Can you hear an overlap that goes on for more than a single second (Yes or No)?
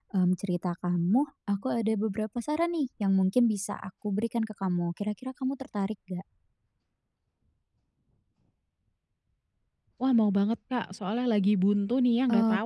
No